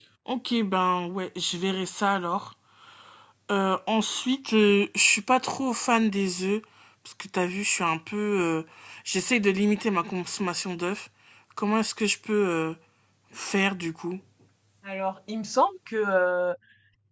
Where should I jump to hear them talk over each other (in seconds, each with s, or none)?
none